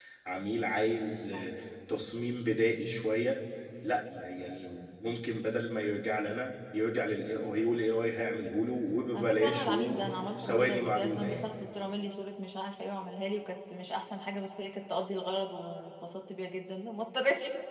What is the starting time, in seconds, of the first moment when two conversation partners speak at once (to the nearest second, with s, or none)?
9 s